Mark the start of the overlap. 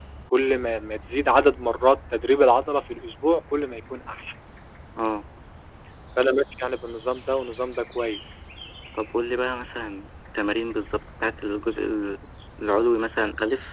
none

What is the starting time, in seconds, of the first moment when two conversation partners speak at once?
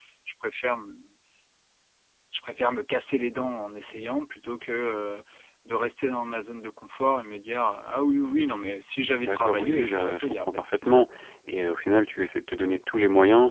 9.2 s

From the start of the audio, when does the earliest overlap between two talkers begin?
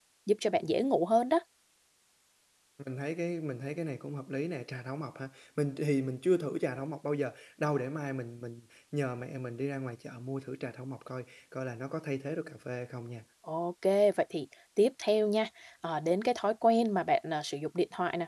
none

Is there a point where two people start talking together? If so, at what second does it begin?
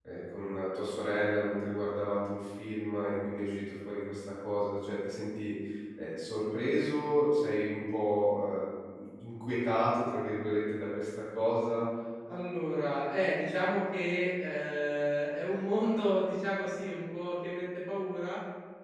none

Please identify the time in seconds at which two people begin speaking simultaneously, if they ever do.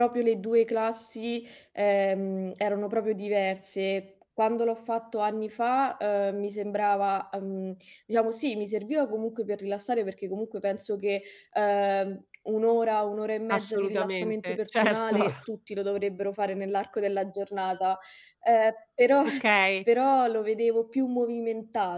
13.5 s

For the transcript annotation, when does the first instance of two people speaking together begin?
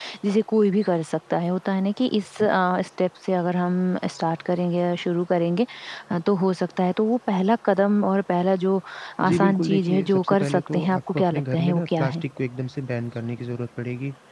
9.3 s

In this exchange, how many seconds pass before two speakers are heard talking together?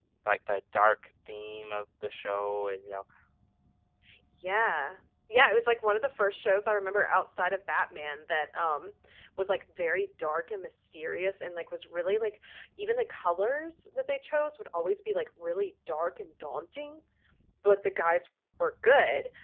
none

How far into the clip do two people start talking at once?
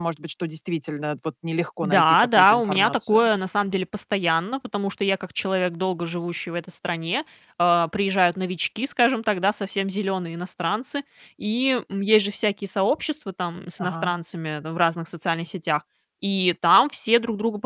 1.8 s

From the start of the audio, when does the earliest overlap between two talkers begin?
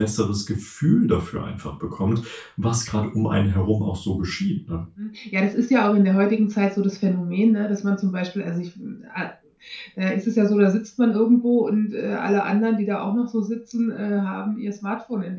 none

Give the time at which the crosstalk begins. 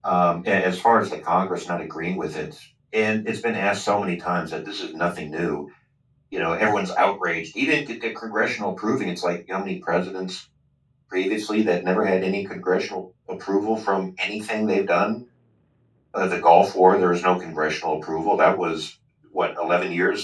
none

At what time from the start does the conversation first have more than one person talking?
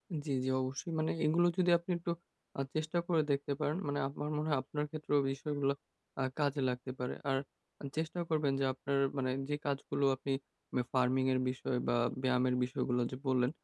none

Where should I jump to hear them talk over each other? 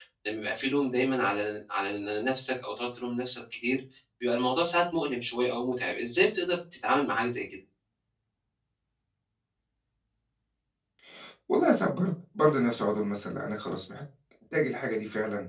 none

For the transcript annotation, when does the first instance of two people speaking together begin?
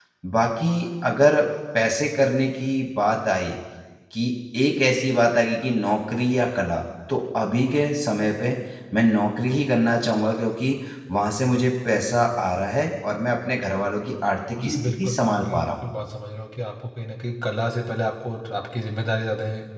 14.6 s

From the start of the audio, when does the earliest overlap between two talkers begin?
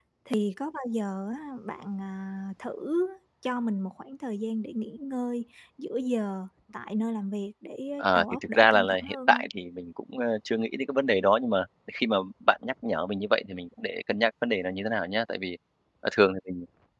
8.0 s

